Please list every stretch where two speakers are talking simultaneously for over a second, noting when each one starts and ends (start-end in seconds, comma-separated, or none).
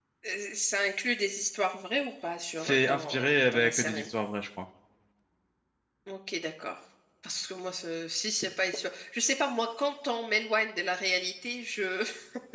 2.6-4.1